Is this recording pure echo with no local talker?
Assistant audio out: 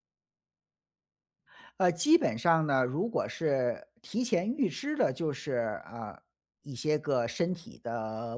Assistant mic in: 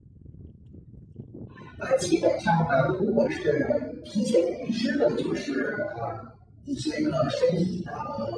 Yes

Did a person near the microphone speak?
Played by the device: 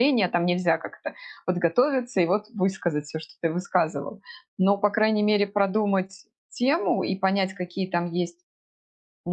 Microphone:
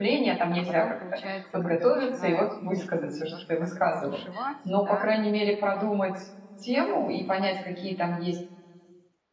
Yes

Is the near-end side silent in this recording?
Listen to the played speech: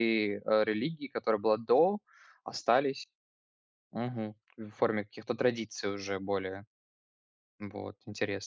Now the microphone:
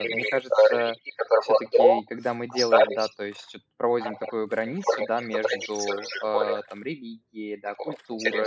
No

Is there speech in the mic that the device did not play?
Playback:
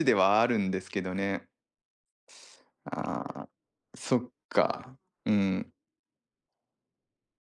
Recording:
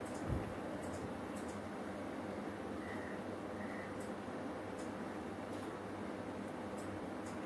No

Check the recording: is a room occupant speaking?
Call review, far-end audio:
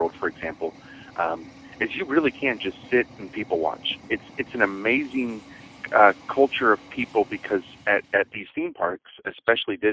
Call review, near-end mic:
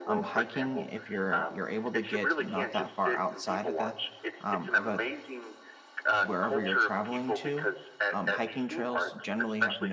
Yes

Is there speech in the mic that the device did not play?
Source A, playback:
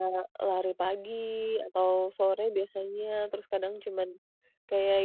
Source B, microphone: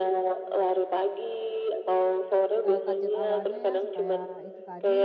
Yes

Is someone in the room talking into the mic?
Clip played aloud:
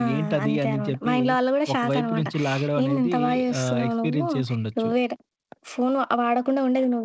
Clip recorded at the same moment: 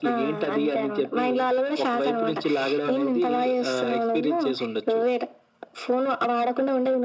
No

